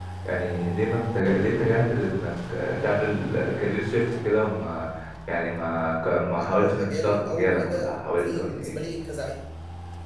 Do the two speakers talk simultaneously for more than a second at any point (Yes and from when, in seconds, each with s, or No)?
Yes, from 6.4 s